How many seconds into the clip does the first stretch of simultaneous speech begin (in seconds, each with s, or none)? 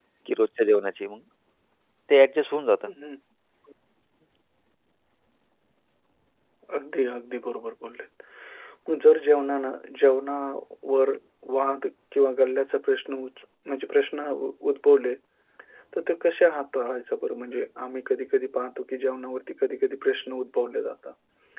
none